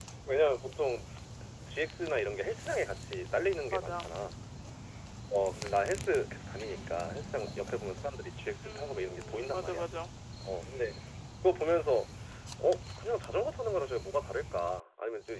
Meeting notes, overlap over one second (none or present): present